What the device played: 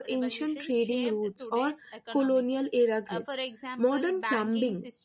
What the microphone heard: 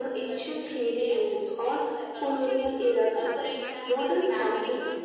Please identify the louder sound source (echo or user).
echo